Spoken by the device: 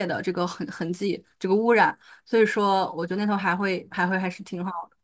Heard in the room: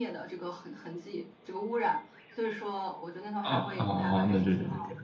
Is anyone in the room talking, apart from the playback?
Yes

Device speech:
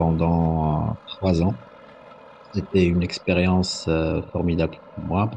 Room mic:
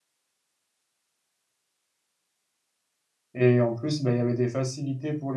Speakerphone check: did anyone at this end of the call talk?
Yes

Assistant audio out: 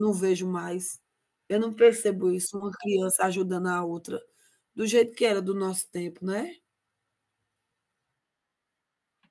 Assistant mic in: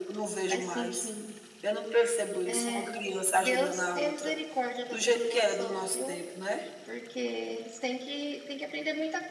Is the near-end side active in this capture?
Yes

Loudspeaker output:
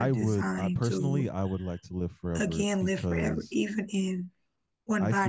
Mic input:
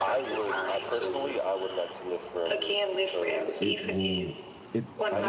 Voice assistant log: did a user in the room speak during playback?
Yes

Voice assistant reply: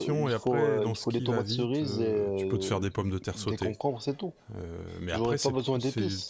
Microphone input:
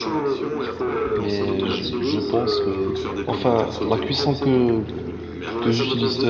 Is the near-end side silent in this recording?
No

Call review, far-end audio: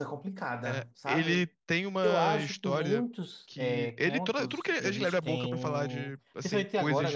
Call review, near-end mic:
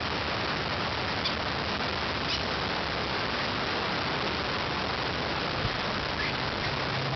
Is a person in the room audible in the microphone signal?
No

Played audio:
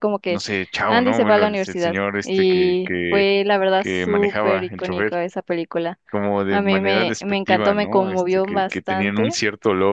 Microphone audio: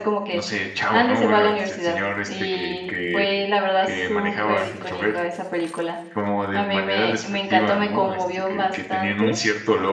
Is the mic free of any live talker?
Yes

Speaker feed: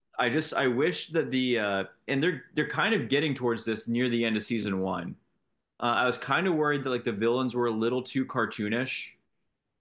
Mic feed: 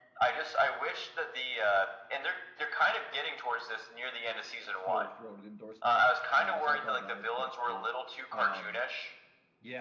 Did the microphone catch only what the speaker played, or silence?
No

